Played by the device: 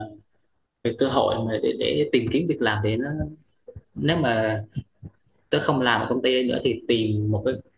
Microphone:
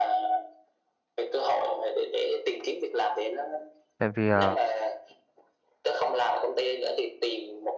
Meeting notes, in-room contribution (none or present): present